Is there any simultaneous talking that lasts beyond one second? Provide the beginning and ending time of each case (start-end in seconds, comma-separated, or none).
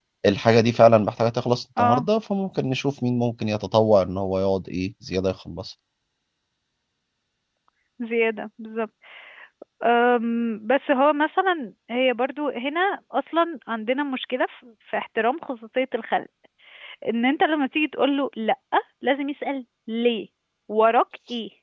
none